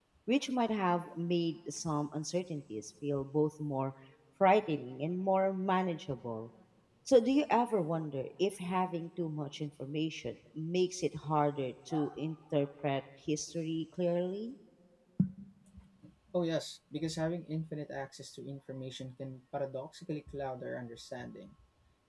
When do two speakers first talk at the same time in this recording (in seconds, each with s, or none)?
none